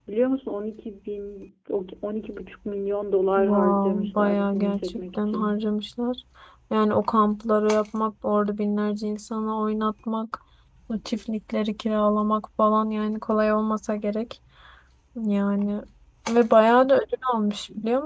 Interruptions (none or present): present